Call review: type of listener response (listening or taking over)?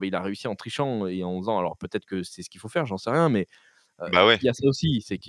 listening